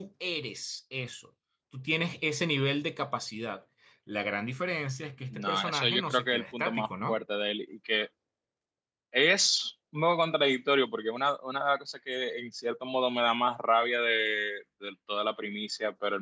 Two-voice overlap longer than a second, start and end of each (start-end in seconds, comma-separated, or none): 5.3-7.2